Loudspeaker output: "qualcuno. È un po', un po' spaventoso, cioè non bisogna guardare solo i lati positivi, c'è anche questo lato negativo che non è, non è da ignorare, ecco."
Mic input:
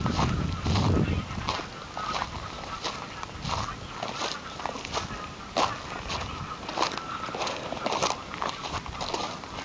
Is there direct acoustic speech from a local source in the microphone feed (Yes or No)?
No